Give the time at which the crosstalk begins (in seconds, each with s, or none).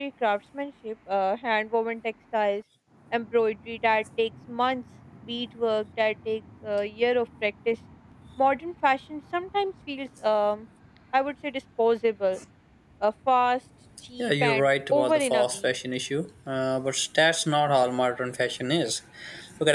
14.2 s